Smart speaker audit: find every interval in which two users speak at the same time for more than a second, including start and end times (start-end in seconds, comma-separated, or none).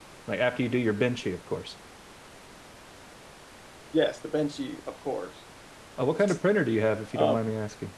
none